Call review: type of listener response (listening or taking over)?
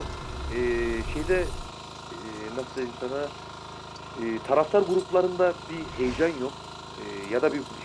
listening